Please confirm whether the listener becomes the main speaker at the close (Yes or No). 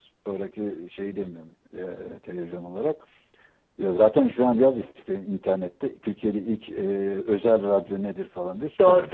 Yes